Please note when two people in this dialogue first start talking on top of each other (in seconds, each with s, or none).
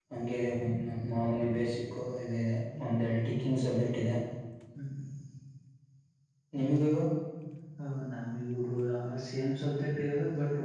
none